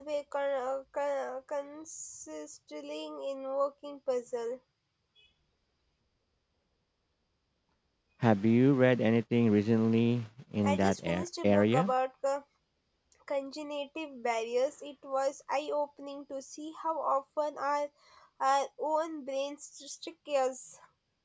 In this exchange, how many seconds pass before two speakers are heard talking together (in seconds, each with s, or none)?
10.6 s